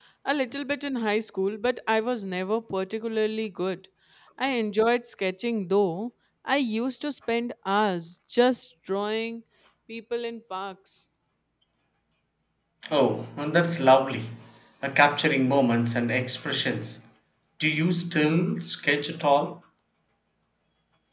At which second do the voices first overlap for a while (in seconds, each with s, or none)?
none